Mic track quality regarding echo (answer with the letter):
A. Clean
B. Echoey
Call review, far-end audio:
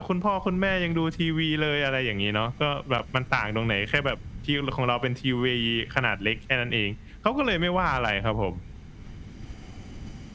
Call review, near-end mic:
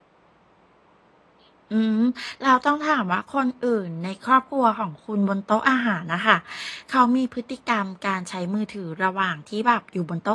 A